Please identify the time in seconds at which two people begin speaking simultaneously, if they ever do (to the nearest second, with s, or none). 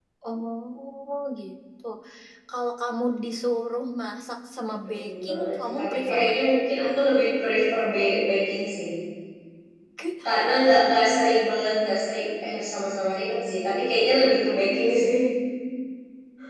5 s